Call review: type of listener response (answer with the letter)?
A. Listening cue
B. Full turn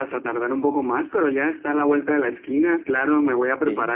A